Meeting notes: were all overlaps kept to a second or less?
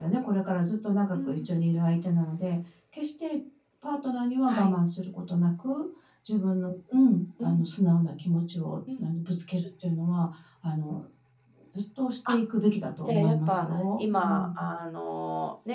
No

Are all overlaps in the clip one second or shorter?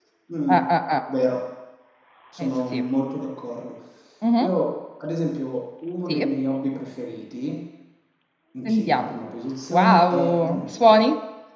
No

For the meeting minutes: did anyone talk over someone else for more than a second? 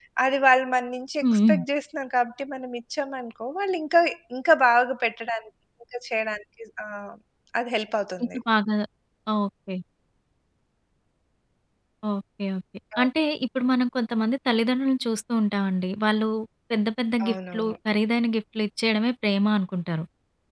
No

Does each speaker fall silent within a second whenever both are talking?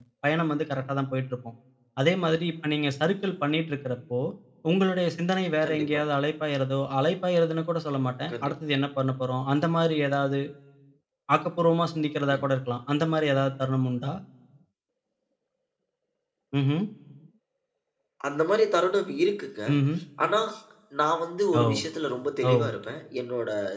Yes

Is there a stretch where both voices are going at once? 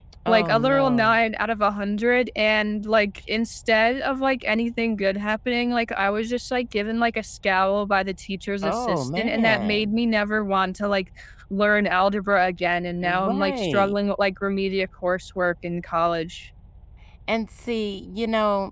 Yes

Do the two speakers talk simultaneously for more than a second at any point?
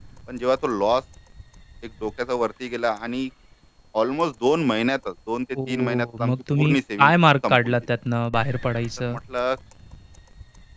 Yes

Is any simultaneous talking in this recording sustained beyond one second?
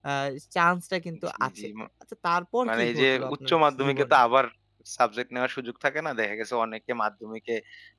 Yes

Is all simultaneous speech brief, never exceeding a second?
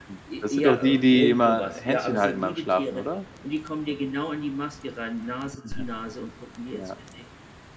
No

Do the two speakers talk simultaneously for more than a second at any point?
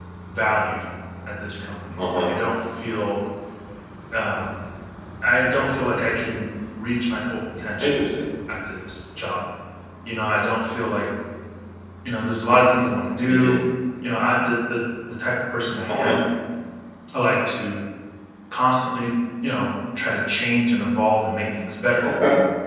No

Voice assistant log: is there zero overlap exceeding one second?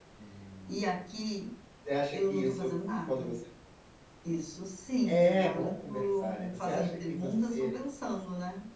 No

